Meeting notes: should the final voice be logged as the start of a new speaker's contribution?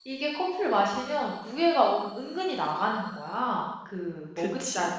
No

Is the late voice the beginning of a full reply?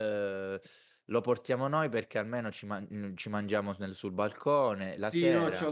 Yes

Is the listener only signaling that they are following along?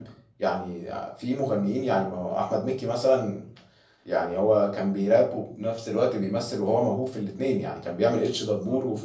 Yes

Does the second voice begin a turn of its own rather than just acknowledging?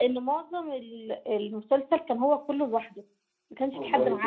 Yes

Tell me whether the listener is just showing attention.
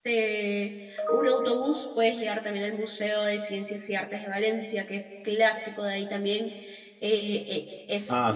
No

